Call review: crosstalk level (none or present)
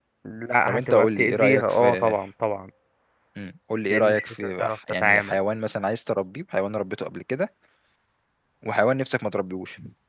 present